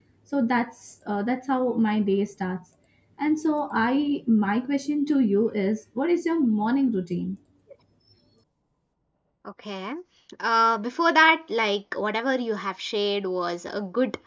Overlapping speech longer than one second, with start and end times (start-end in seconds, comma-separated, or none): none